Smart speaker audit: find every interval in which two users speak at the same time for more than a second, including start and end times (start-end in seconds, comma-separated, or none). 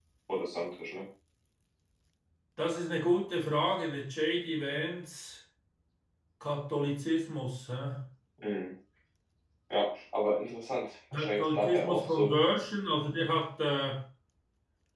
11.1-12.3